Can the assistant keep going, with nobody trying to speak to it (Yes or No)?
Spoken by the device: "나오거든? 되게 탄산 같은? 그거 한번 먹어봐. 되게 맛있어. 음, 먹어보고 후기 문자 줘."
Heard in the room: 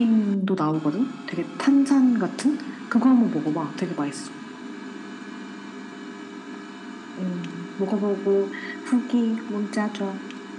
Yes